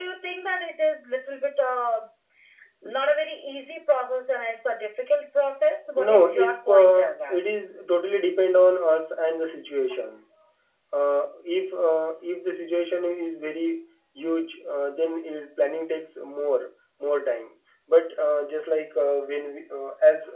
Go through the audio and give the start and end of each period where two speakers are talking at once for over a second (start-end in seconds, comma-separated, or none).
6.0-7.4